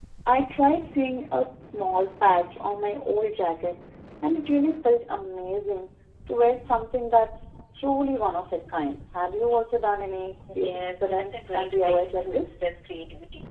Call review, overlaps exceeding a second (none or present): present